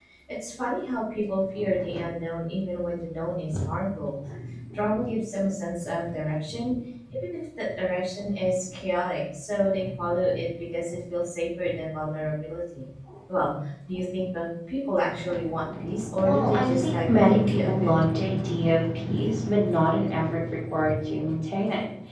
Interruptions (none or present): present